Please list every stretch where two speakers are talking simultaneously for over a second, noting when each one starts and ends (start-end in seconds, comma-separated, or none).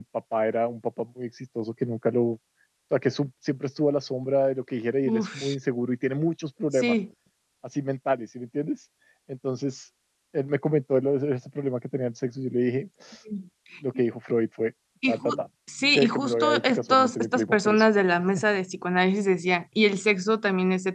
16.0-17.8